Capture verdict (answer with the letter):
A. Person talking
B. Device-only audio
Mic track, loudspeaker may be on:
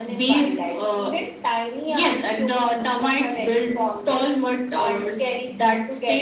B